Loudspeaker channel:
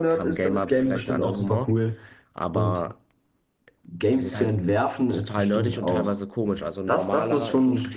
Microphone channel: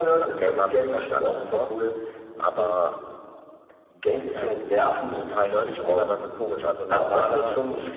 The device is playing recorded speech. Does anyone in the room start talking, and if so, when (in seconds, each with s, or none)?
none